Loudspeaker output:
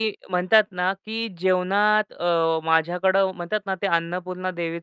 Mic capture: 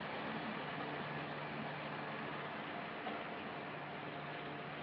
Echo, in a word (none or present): none